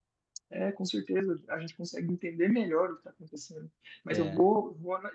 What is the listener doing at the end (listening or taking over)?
listening